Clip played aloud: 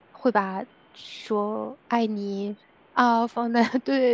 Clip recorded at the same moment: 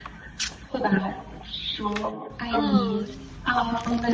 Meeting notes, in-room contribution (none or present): present